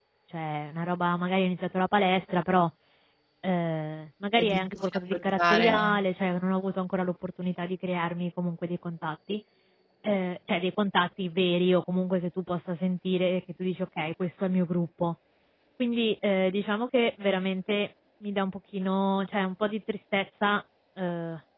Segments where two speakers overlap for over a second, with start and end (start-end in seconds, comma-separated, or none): 4.3-6.0